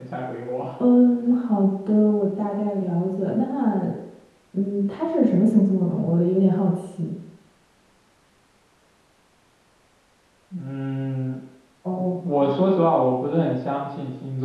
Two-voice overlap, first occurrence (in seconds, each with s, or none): none